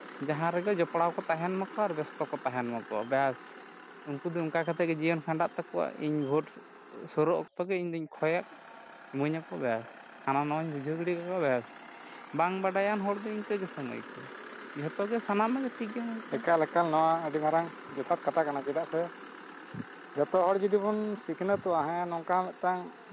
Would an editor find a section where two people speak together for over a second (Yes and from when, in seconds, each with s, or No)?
No